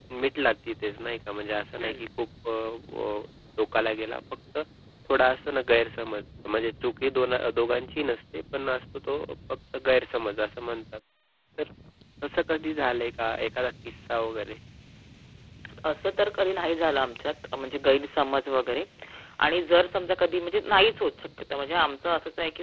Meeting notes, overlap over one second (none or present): none